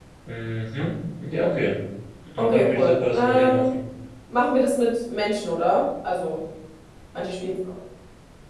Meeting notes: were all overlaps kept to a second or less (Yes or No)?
No